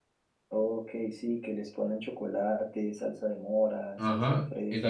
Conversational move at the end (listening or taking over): taking over